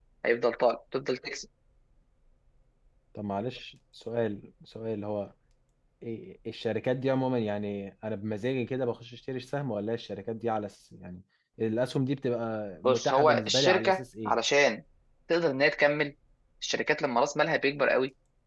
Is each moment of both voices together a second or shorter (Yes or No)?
No